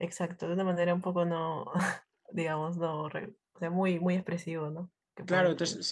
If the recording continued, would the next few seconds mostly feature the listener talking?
Yes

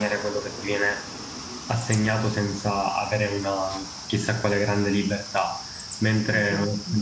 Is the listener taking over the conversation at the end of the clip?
No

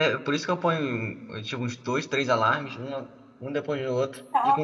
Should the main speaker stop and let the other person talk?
Yes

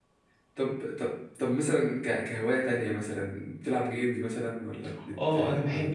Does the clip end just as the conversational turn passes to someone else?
Yes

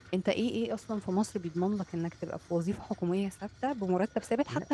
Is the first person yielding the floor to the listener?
No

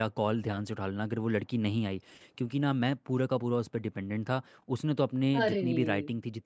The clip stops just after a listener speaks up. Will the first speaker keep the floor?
Yes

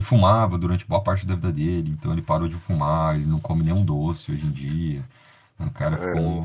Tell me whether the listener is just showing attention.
Yes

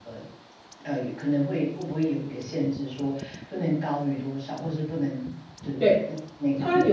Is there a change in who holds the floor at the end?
Yes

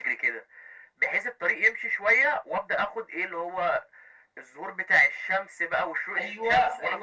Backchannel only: No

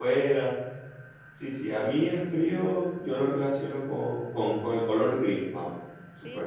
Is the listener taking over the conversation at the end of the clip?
Yes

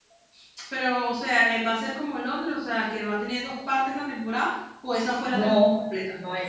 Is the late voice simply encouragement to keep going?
No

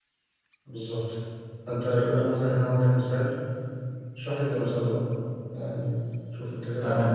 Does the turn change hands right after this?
Yes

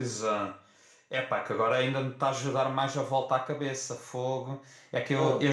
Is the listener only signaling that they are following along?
Yes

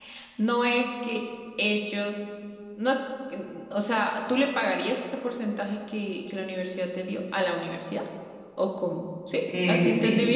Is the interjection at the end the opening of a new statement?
Yes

